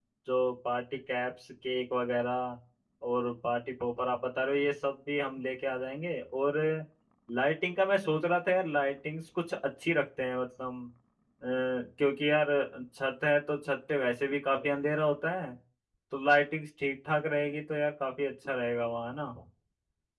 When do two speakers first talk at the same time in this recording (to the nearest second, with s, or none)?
none